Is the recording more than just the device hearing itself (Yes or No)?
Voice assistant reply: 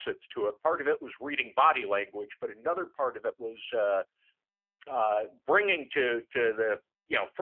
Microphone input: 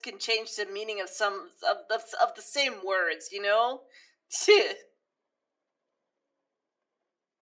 Yes